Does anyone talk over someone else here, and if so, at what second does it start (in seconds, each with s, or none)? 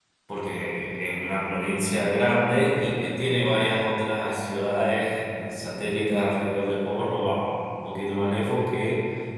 none